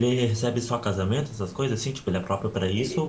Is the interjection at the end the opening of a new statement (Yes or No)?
Yes